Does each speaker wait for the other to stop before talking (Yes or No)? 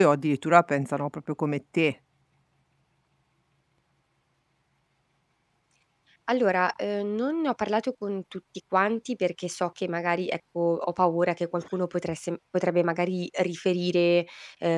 Yes